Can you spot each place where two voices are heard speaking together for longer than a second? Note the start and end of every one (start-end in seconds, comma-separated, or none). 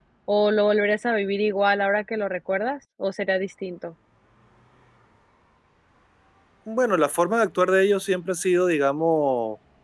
none